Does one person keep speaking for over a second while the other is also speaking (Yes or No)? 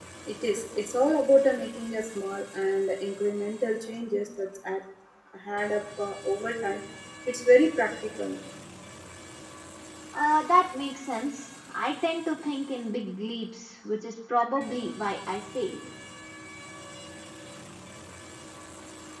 No